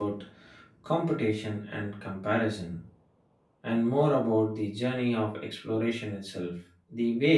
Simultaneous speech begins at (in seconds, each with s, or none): none